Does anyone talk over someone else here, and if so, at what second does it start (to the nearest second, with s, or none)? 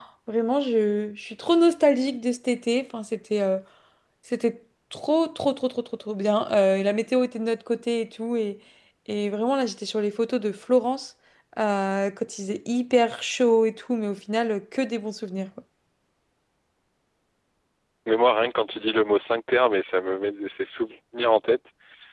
none